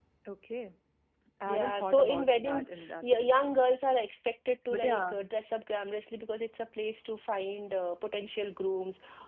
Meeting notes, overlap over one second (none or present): present